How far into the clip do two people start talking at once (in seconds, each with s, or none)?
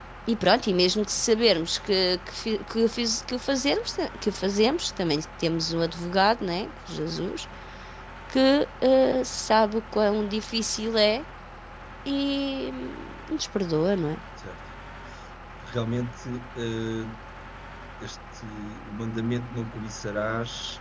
none